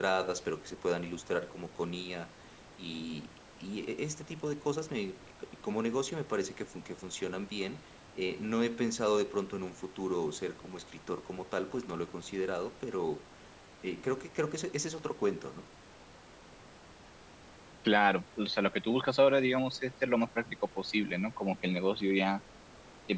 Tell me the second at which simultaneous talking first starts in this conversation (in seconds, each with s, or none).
none